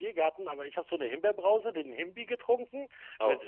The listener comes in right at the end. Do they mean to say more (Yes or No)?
No